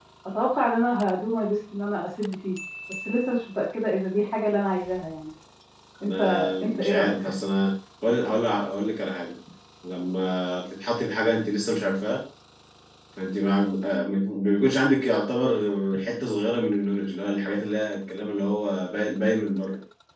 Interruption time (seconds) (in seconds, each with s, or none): 6.0 s